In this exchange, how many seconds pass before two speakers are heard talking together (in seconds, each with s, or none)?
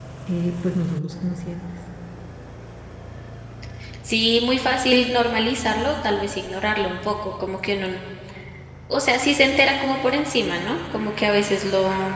none